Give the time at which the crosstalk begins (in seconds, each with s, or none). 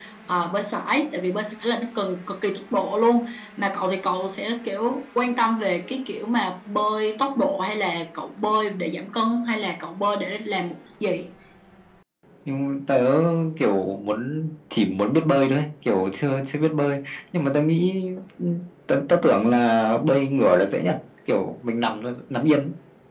none